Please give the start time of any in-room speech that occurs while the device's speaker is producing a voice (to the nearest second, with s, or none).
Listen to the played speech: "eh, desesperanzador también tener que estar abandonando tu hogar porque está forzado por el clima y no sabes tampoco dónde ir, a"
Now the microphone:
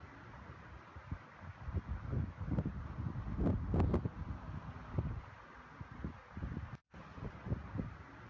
none